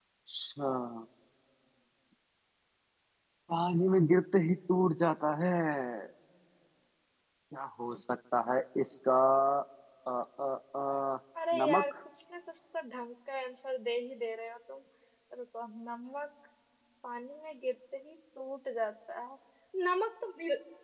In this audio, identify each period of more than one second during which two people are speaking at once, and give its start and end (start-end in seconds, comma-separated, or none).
none